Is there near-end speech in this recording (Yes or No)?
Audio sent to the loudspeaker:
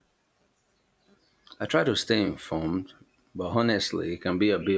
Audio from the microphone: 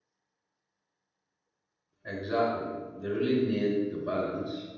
Yes